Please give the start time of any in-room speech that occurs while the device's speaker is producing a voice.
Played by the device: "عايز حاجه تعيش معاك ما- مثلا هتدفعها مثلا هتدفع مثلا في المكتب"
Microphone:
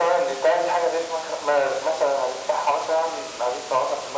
none

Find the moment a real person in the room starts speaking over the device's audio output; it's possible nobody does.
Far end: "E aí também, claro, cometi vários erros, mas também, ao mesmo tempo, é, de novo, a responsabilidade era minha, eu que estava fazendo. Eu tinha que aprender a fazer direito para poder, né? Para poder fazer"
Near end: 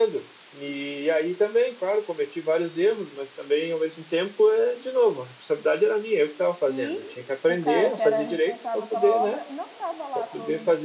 6.6 s

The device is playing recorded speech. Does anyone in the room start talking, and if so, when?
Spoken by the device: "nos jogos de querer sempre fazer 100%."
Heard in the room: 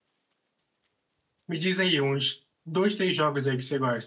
1.5 s

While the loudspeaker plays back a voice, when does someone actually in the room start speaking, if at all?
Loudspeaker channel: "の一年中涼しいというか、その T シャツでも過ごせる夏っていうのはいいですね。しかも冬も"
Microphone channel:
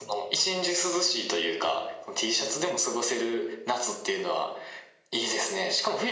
none

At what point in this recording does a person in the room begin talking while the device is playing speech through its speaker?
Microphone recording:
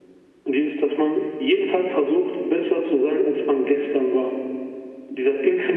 none

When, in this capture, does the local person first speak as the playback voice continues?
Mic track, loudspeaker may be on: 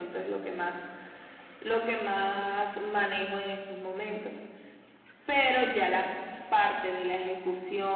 none

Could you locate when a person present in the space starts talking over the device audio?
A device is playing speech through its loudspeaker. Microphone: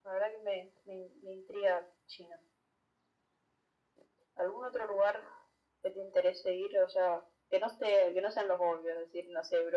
none

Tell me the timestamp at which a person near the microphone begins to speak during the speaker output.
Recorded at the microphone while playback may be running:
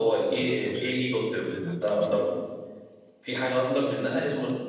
0.4 s

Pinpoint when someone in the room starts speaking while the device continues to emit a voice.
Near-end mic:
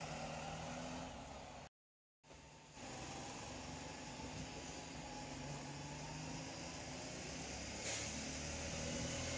none

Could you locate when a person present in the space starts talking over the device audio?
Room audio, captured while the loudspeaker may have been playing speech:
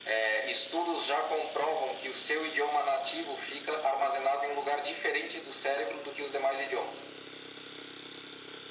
none

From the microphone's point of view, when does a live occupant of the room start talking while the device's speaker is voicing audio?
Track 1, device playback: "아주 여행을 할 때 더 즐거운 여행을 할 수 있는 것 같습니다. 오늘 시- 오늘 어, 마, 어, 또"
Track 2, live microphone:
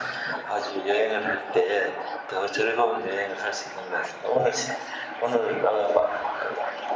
none

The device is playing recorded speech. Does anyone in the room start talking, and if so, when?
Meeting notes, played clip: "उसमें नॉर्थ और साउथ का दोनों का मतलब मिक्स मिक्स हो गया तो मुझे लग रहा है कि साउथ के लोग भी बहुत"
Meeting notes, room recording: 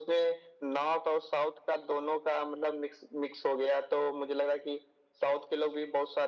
none

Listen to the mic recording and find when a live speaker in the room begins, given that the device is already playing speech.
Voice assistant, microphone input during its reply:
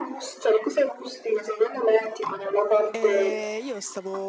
2.9 s

